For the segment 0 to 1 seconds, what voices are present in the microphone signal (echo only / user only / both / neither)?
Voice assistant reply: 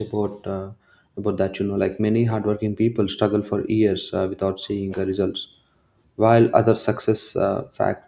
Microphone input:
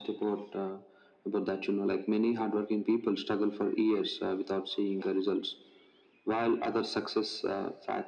echo only